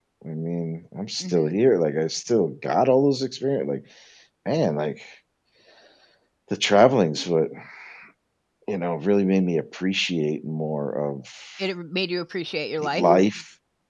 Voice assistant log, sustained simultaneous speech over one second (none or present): none